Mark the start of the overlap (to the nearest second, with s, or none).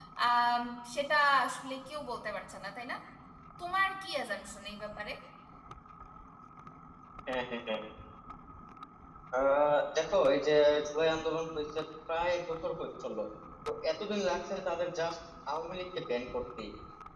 none